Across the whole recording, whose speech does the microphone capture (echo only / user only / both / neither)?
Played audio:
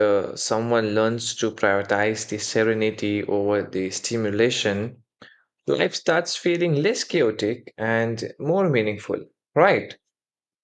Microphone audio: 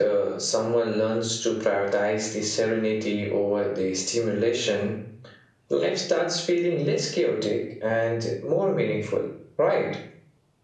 echo only